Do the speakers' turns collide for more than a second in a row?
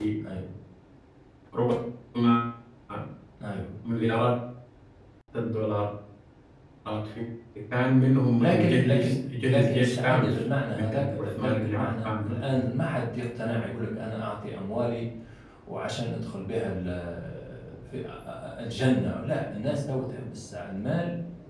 Yes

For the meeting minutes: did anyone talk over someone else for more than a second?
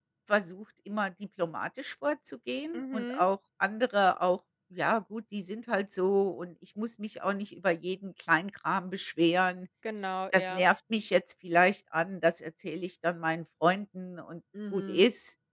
No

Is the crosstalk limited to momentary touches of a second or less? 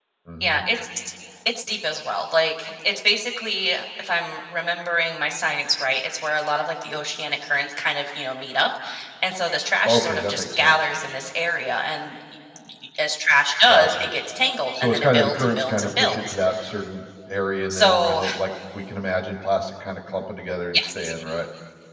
No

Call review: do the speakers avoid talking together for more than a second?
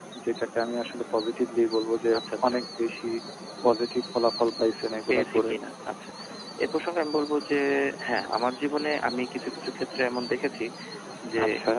Yes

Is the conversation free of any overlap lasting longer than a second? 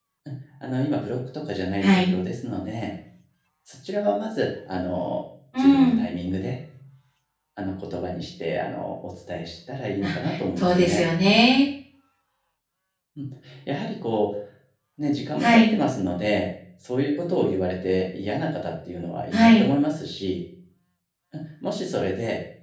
Yes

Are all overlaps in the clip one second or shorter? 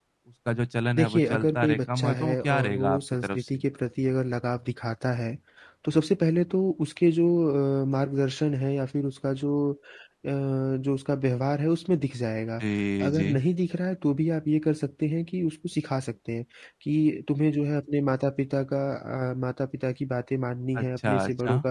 No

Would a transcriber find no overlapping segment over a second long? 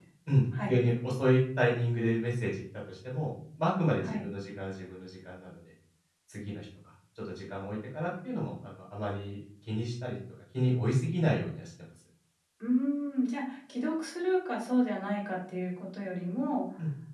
Yes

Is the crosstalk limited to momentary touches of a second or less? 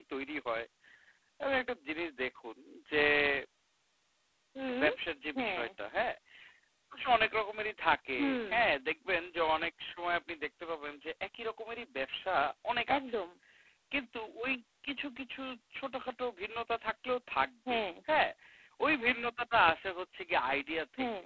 Yes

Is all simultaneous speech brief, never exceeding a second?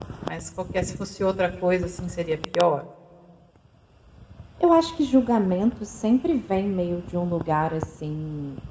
Yes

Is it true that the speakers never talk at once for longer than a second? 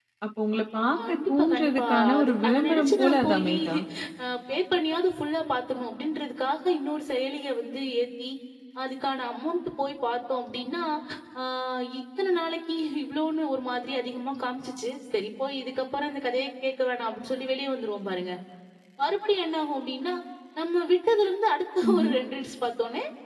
No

